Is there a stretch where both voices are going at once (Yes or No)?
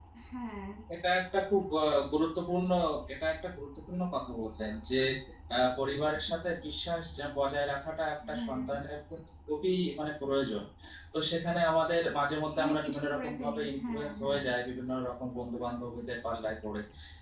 Yes